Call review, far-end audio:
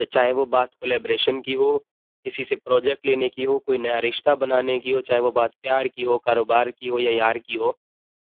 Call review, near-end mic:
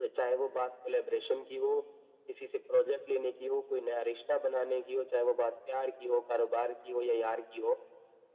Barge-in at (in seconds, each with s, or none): none